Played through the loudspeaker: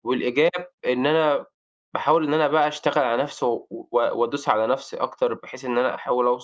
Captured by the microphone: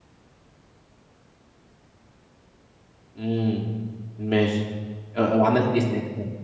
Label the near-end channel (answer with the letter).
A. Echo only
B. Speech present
B